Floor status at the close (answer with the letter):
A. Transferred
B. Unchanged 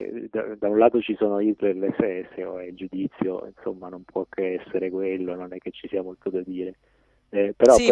A